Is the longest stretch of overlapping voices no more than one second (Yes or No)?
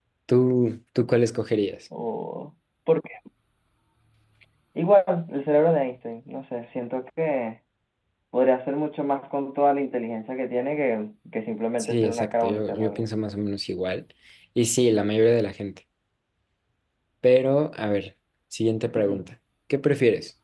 No